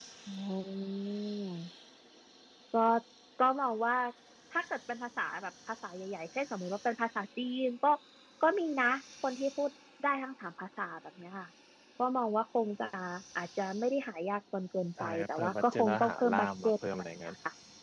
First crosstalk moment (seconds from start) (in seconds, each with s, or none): 15.0 s